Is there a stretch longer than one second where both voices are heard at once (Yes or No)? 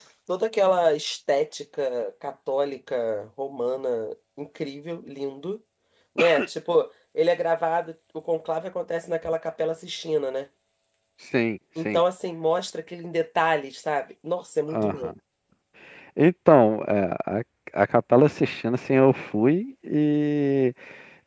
No